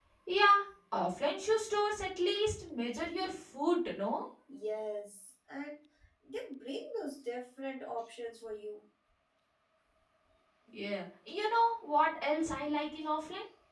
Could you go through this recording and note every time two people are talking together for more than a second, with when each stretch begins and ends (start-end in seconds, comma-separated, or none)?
none